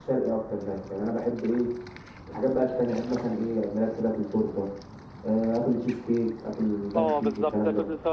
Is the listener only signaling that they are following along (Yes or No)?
No